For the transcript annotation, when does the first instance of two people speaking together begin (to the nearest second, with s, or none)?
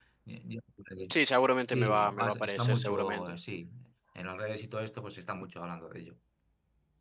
2 s